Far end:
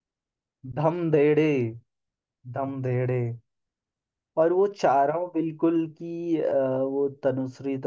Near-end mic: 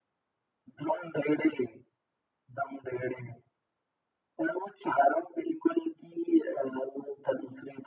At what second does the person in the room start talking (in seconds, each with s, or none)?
none